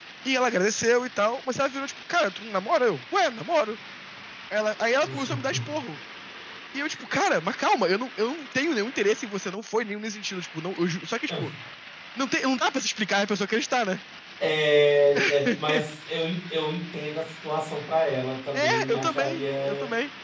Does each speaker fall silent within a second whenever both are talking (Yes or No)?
No